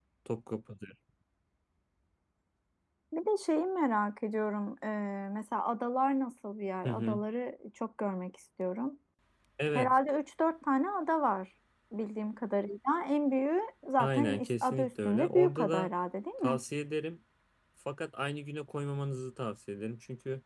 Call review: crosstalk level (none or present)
present